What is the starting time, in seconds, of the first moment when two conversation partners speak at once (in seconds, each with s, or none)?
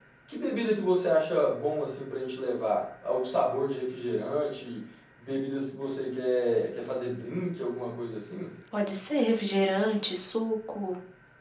none